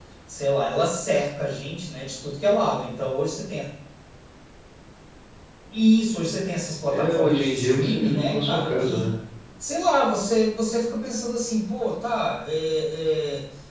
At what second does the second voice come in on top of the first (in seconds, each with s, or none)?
6.9 s